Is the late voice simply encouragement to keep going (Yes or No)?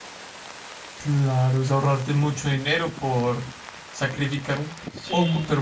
Yes